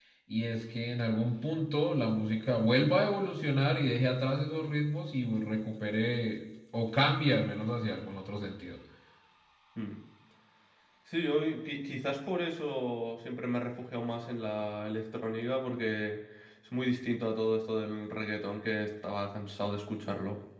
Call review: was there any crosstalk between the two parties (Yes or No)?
No